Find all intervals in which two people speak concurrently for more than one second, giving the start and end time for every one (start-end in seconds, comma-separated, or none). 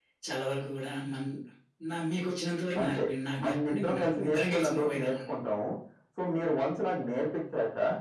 3.4-5.1